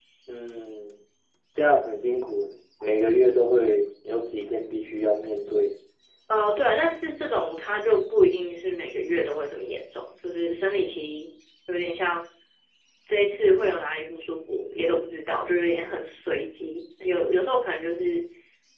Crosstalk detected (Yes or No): No